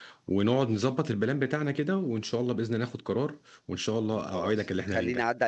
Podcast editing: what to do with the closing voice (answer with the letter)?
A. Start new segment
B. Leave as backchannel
A